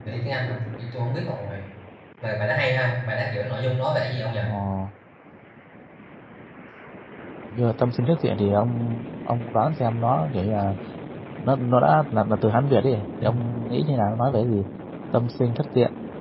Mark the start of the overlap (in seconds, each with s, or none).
none